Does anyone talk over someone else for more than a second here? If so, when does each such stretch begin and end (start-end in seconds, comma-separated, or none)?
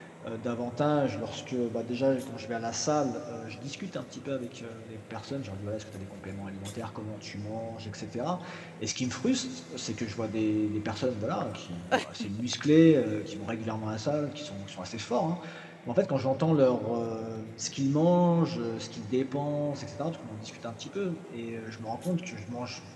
none